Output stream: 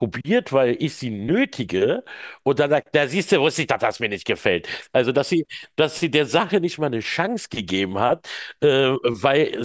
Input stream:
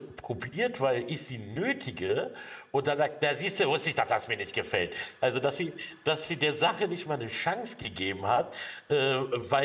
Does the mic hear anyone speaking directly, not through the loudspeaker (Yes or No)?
No